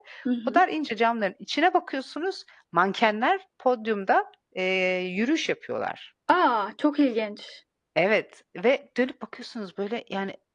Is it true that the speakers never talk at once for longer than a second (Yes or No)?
Yes